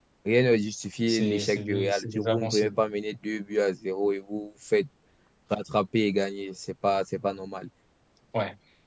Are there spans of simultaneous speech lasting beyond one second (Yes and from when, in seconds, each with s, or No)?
Yes, from 1.1 s